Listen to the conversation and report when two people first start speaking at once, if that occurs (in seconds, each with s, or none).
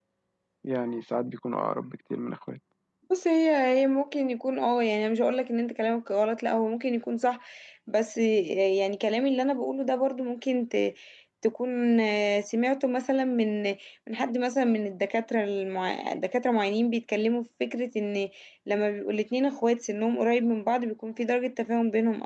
none